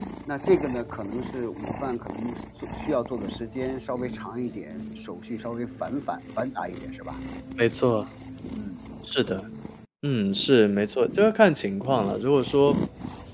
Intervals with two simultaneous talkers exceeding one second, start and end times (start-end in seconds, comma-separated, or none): none